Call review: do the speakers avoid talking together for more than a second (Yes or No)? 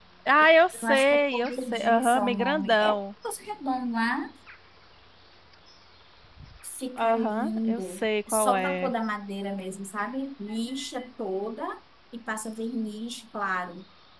No